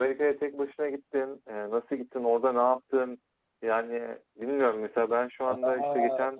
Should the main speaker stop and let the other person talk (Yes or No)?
Yes